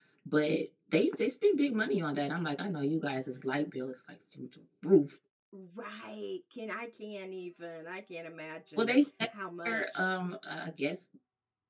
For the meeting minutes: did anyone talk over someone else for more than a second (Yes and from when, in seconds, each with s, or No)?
No